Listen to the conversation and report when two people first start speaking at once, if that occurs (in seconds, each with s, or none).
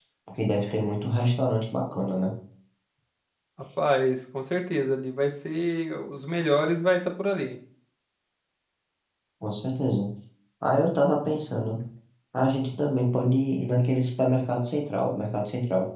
none